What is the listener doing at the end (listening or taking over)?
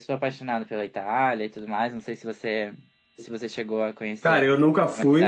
taking over